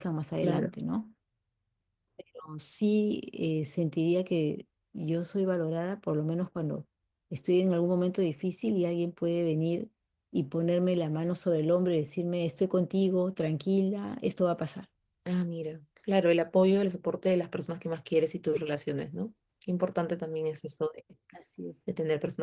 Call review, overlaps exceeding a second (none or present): none